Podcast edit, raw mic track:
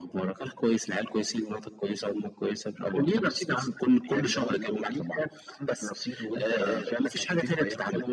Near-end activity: none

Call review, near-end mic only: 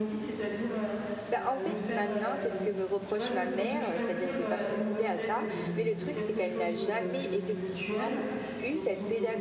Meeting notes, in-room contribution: present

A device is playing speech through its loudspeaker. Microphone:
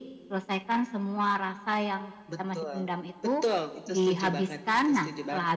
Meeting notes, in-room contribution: none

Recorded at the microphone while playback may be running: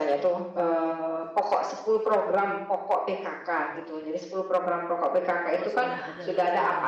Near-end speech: present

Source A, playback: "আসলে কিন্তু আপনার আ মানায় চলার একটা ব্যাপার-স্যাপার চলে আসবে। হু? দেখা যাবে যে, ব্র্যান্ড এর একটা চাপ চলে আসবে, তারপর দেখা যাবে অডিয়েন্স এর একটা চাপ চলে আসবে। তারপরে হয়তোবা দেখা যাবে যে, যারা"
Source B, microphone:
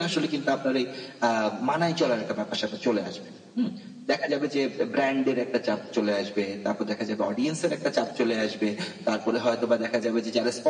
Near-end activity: none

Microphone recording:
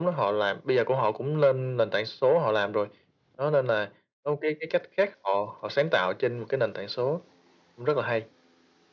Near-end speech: none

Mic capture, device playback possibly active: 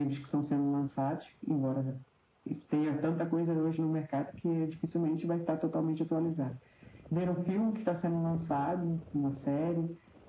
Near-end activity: none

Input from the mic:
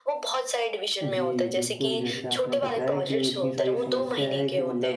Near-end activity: present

